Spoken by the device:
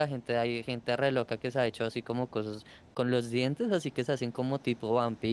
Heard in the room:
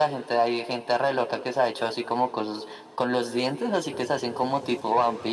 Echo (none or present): present